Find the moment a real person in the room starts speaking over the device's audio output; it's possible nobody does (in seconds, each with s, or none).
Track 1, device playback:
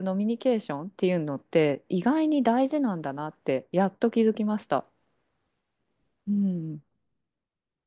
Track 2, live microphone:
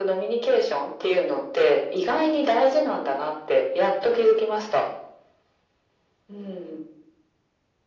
none